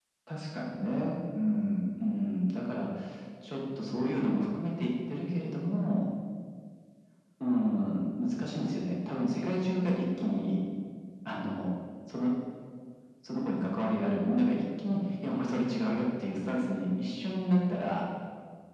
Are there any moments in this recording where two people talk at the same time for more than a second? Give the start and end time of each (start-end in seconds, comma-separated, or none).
none